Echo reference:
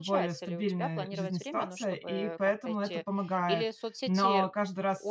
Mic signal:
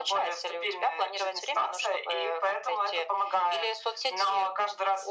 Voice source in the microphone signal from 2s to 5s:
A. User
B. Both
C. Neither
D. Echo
D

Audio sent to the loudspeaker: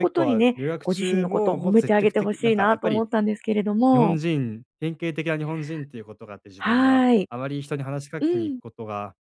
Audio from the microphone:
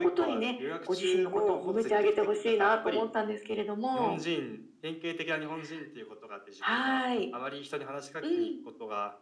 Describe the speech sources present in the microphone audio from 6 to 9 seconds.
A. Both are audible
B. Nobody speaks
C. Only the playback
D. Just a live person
C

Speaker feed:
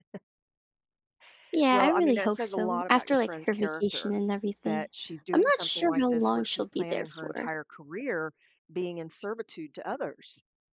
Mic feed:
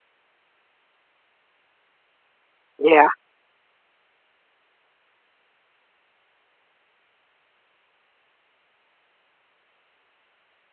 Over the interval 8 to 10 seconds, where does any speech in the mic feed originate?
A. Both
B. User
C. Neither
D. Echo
C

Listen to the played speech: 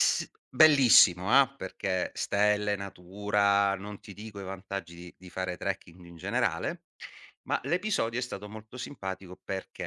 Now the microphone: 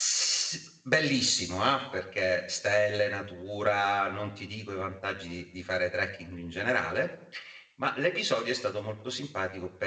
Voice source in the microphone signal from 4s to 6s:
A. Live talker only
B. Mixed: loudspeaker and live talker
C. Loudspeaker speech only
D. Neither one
C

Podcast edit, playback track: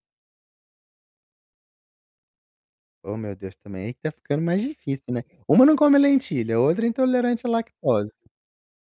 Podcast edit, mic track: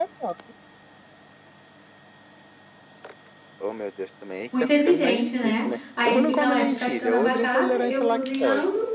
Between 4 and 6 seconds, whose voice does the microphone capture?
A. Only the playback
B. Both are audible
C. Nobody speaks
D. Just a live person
B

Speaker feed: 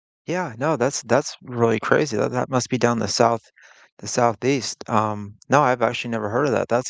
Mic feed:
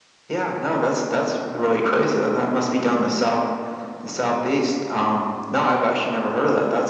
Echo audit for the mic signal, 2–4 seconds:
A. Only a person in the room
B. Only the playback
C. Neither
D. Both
B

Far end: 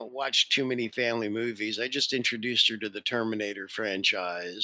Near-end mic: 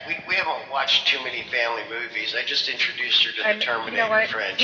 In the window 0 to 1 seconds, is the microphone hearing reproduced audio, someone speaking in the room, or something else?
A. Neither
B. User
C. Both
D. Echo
D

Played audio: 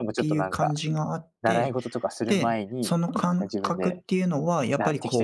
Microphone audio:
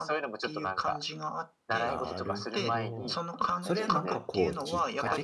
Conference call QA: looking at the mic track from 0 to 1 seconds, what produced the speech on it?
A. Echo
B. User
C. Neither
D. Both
A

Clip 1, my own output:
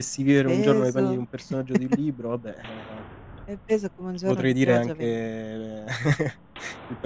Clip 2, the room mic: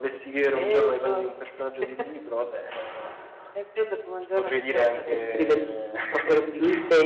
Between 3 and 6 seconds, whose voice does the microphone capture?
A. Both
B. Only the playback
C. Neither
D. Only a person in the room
A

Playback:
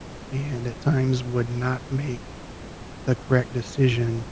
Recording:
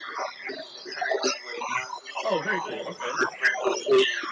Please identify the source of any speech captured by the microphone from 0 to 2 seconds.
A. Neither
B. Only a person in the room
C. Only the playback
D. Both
C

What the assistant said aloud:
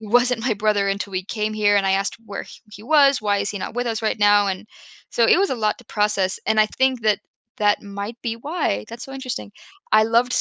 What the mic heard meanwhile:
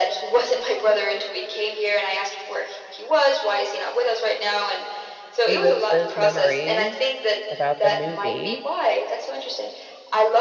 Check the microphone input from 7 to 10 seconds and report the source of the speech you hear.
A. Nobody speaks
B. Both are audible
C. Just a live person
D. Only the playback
B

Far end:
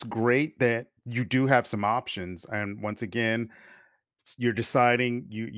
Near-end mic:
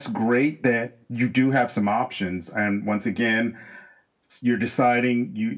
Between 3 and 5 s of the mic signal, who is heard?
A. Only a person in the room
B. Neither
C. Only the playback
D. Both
C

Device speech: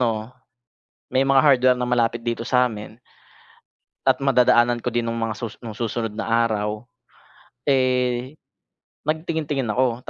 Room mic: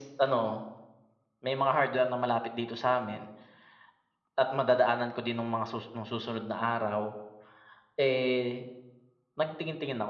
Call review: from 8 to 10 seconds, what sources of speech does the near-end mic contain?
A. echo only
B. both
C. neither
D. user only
A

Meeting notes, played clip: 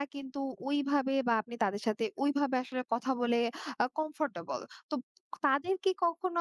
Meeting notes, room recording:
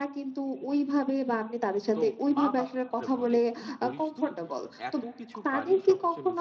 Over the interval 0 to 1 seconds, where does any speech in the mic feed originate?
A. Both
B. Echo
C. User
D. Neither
B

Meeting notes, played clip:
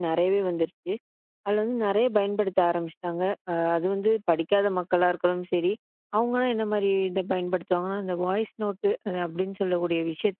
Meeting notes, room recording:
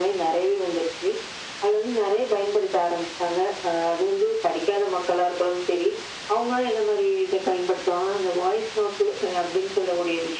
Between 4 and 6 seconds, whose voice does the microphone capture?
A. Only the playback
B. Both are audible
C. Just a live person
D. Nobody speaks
A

